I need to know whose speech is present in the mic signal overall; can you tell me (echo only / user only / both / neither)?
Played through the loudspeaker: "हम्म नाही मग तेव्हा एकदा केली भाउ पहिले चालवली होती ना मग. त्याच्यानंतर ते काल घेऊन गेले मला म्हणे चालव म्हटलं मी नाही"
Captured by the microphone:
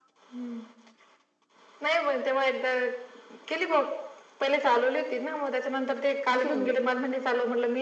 both